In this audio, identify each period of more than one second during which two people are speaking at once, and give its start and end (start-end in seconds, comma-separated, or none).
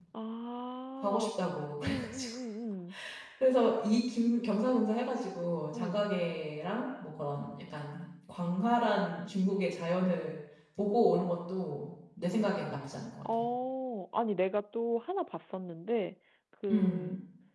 none